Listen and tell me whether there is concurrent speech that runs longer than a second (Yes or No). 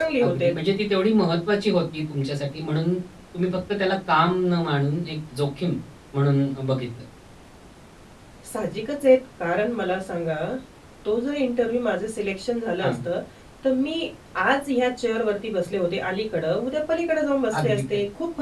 No